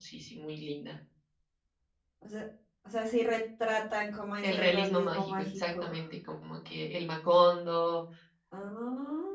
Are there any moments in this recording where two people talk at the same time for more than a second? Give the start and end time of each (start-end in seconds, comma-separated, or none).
4.4-5.9